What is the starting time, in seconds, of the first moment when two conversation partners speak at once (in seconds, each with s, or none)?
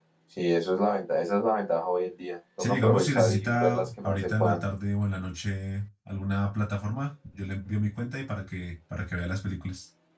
2.6 s